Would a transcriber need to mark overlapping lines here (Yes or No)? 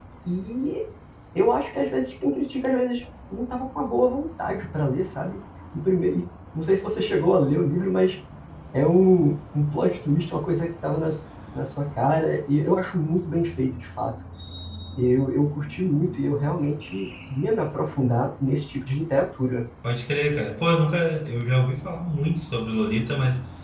No